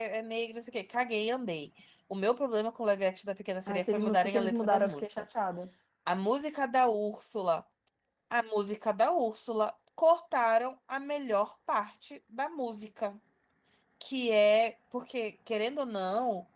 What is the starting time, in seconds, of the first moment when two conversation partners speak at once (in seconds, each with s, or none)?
3.7 s